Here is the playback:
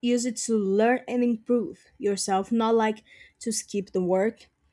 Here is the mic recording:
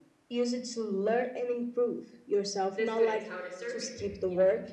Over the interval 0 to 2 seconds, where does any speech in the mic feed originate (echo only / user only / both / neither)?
echo only